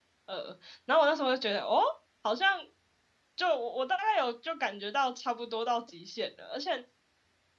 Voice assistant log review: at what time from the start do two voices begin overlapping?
none

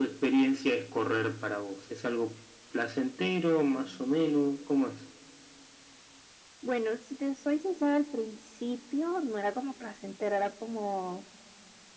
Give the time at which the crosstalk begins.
none

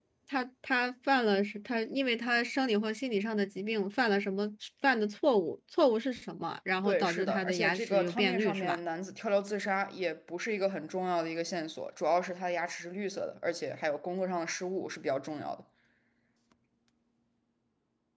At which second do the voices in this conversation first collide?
7 s

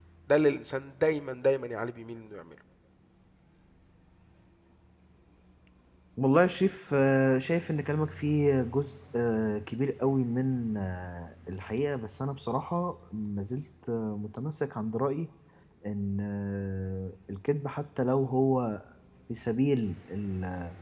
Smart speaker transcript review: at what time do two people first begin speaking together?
none

